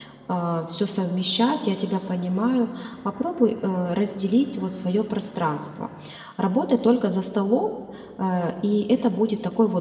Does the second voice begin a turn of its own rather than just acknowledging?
No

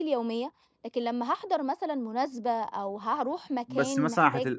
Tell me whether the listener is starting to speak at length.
Yes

